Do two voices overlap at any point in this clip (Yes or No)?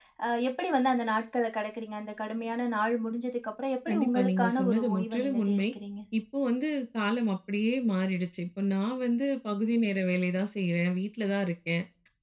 Yes